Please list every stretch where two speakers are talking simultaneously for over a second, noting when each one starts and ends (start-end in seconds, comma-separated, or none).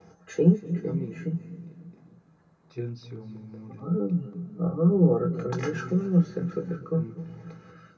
none